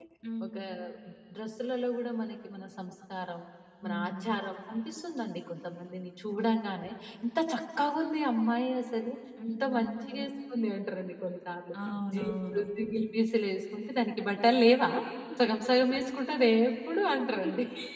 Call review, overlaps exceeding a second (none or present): none